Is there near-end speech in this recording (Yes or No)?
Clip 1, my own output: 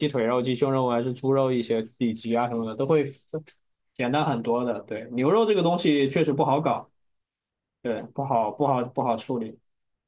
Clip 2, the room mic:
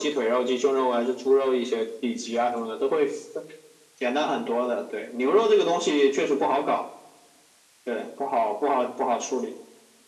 No